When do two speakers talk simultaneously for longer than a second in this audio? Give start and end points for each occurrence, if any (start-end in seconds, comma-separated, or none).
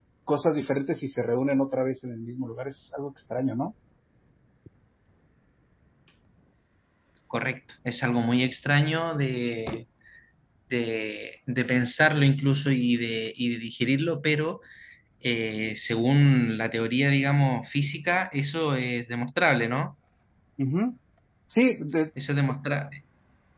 none